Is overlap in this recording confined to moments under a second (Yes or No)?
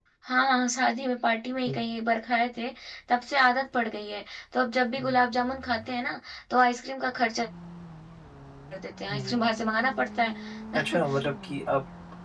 Yes